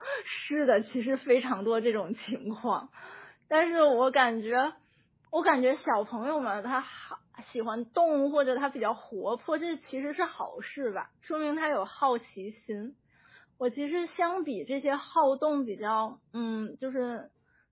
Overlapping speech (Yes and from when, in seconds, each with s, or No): No